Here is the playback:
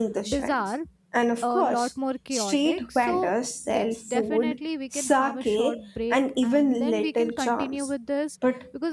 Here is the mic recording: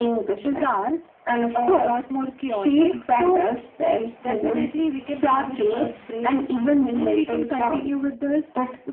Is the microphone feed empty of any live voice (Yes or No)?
Yes